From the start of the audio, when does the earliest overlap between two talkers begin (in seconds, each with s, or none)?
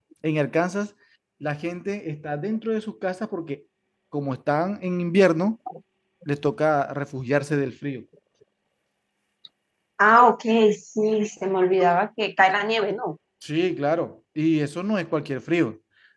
none